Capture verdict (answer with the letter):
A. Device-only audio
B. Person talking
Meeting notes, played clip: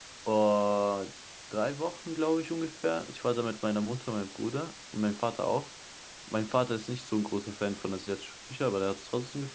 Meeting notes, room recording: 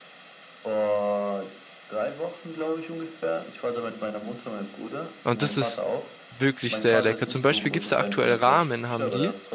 B